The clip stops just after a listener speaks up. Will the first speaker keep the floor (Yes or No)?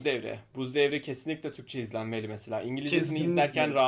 No